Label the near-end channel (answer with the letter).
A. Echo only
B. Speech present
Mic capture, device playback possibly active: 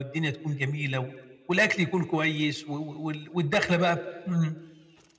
A